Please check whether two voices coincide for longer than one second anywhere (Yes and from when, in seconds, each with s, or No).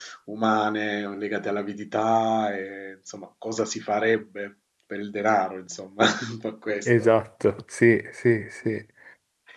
No